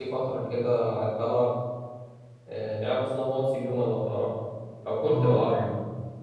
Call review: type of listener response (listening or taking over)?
taking over